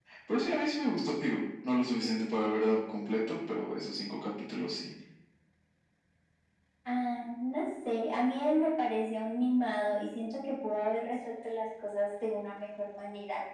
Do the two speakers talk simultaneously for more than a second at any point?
No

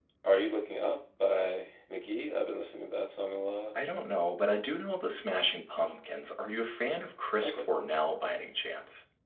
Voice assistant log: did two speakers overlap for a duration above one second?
No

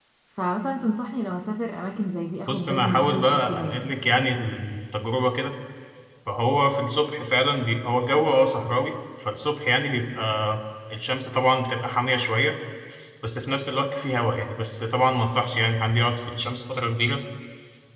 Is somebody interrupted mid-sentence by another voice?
Yes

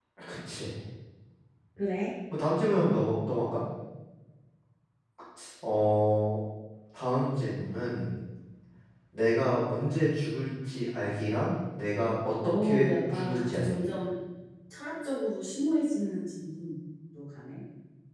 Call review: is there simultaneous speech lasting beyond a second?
Yes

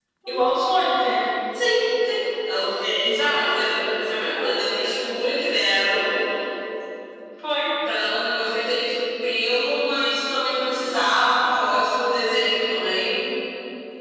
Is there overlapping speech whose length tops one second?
No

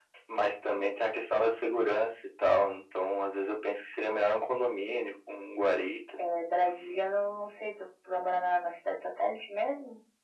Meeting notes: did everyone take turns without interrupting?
Yes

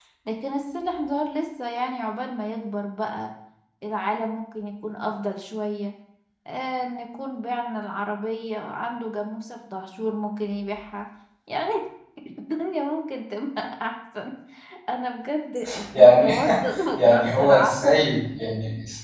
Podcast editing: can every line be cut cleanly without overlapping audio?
No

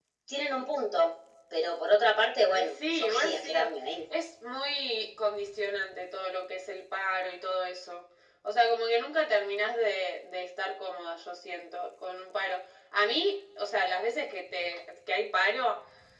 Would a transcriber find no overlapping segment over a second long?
No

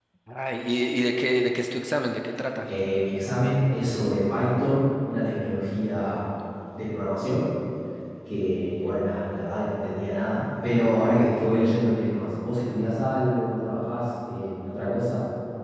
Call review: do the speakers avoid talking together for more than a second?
Yes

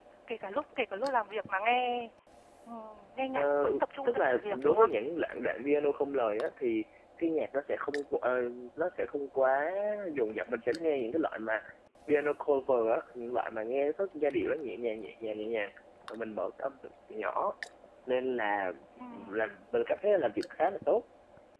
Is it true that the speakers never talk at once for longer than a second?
No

